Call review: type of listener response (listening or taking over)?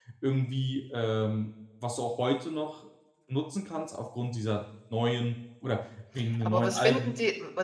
taking over